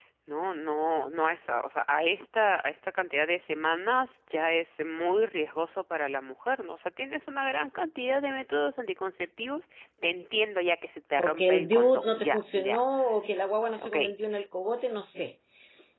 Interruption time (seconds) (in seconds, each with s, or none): 11.2 s